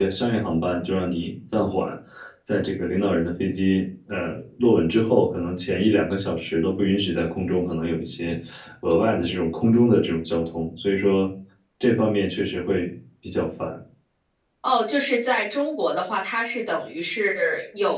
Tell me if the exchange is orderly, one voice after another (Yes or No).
Yes